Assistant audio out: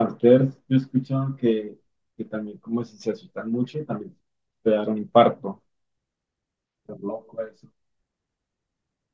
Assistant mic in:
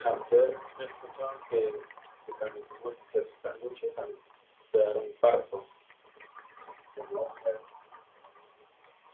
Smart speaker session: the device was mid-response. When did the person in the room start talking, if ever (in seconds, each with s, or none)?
none